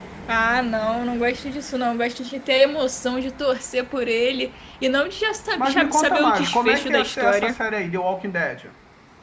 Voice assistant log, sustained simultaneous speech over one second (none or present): present